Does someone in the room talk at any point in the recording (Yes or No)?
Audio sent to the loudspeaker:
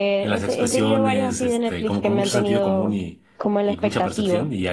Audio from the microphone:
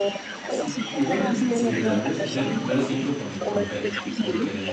Yes